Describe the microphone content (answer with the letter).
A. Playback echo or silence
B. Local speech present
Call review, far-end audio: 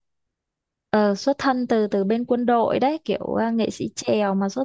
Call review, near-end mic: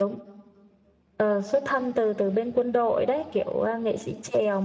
A